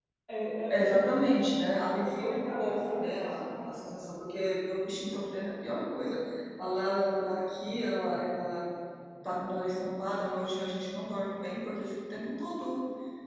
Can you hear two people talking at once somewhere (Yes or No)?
Yes